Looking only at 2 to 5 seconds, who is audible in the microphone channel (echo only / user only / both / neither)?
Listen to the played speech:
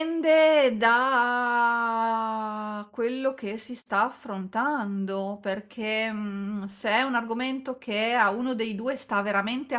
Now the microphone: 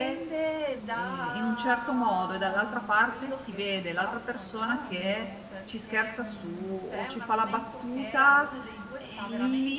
both